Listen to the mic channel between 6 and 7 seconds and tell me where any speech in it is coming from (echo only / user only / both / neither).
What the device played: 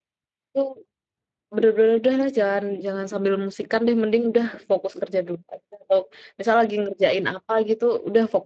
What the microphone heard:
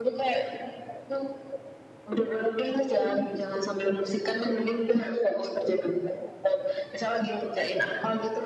echo only